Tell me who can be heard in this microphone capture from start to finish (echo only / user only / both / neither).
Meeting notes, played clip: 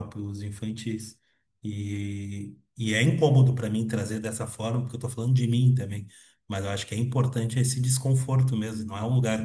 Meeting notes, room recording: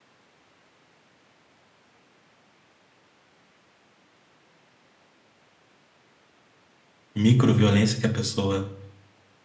user only